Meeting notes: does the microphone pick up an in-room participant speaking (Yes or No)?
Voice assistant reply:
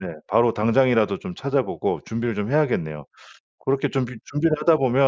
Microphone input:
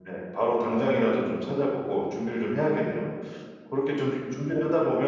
No